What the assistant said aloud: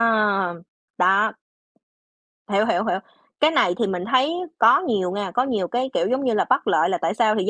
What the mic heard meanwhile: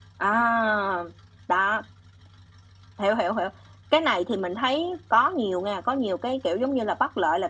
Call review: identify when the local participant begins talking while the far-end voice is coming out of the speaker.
none

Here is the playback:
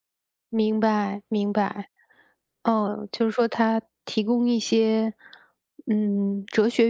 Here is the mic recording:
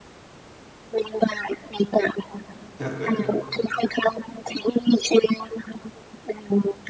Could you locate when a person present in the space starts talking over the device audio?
2.8 s

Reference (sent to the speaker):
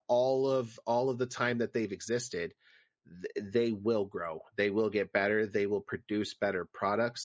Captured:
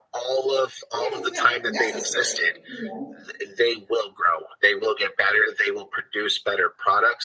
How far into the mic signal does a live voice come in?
0.9 s

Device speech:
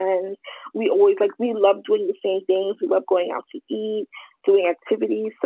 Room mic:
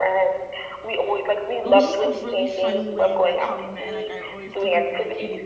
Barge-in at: 1.6 s

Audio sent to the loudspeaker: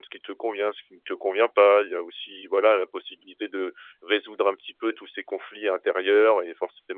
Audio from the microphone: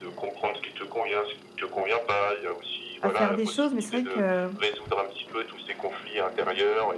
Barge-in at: 3.0 s

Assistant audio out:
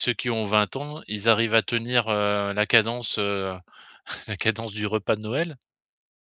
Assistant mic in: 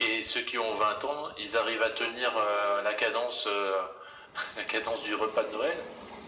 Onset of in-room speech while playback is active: none

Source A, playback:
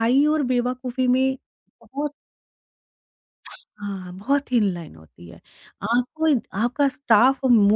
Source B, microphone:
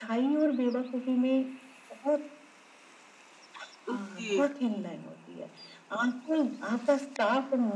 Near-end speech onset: 3.9 s

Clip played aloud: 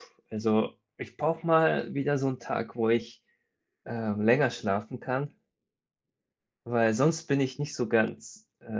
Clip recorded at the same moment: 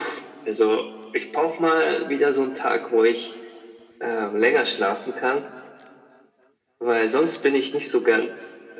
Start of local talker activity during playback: none

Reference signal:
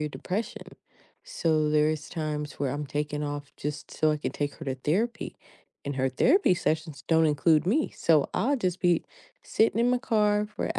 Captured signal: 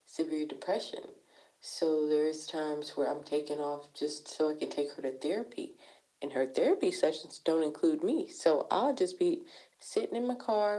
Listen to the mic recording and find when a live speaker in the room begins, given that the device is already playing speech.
none

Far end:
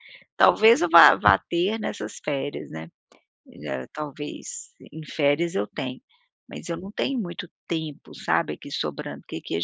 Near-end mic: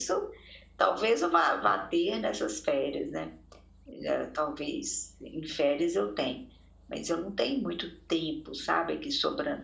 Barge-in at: none

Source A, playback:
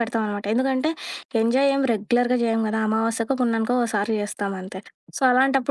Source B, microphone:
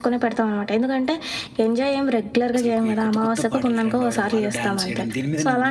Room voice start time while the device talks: 2.6 s

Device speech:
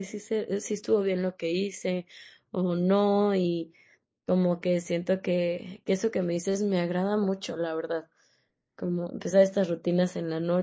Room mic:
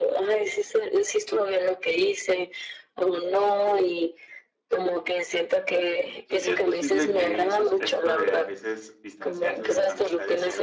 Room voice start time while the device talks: 6.3 s

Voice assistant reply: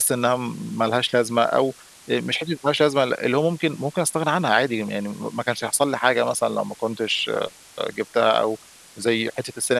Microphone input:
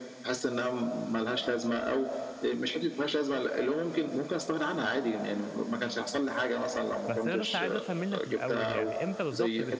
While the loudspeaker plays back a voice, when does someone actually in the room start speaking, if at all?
7.1 s

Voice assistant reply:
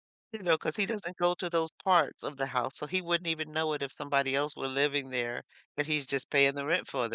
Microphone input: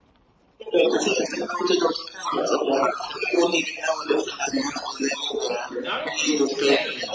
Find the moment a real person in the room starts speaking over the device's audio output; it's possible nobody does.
5.8 s

